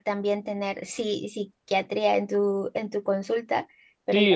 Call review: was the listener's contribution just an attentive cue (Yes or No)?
No